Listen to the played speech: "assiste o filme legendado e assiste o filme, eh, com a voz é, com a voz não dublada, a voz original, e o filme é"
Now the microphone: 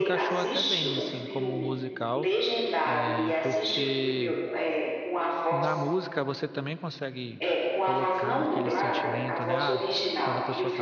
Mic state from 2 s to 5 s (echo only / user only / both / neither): both